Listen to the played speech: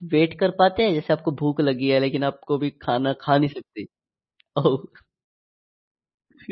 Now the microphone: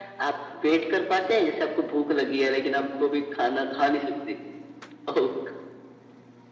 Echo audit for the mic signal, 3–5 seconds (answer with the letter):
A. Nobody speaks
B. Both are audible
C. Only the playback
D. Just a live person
C